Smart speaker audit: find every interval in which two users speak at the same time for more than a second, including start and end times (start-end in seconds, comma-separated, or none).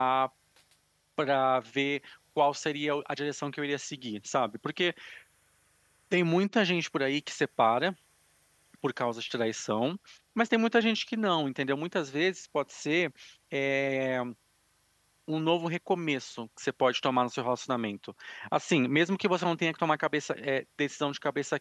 none